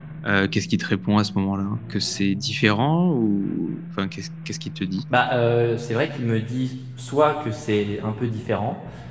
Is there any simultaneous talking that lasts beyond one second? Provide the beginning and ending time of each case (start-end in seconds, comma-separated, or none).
none